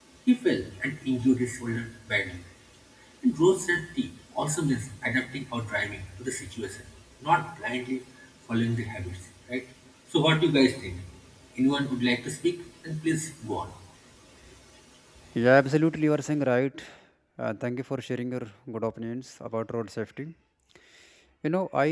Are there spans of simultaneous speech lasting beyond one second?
No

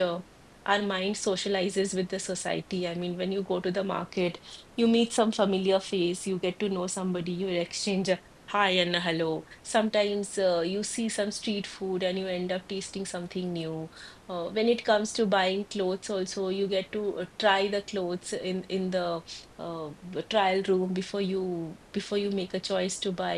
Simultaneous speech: No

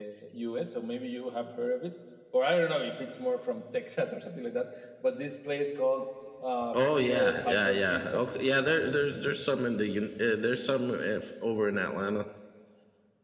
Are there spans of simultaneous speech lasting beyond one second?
Yes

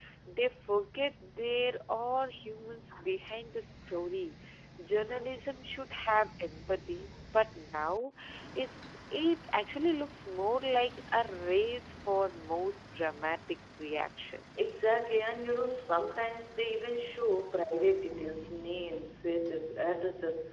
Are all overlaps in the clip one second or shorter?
Yes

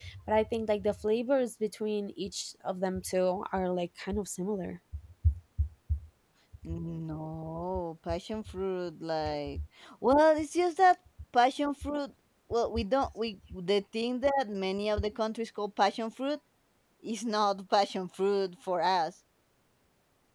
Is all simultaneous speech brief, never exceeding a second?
Yes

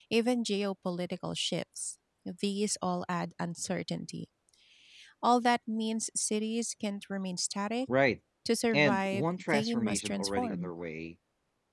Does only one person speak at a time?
No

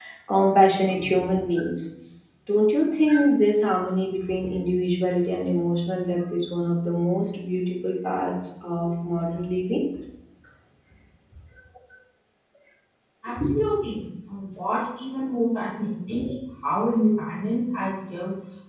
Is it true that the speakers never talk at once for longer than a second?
Yes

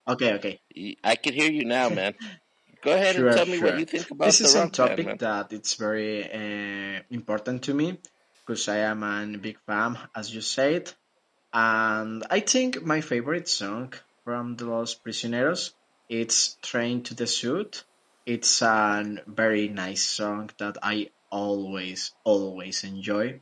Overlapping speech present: Yes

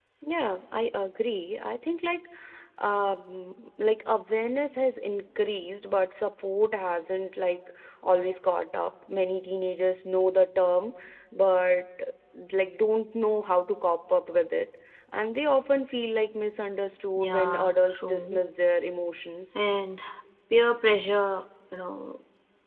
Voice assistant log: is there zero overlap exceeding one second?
No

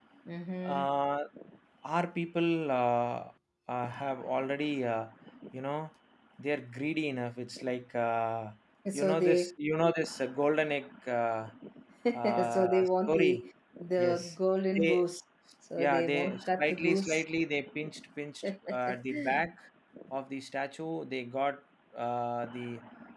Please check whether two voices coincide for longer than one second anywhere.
Yes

